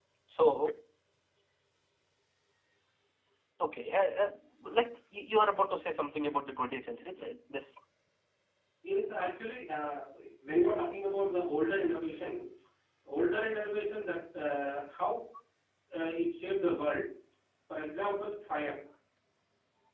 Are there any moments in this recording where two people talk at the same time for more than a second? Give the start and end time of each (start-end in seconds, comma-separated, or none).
none